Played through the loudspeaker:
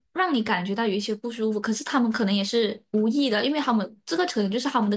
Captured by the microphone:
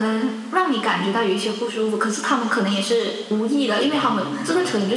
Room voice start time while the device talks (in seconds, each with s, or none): 3.8 s